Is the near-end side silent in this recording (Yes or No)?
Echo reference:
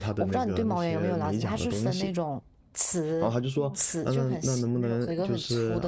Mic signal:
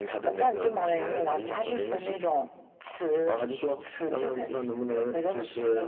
Yes